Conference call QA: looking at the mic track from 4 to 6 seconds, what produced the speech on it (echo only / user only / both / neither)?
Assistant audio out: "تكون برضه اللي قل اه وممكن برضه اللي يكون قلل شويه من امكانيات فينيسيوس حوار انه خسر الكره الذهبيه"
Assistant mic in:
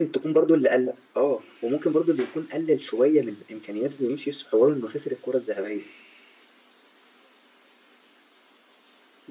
echo only